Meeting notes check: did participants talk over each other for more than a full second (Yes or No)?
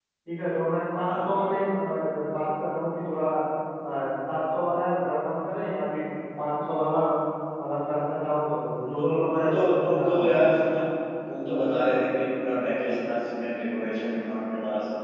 Yes